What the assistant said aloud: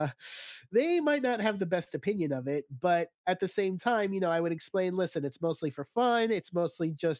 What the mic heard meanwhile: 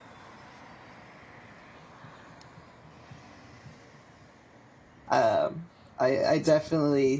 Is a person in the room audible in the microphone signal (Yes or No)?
Yes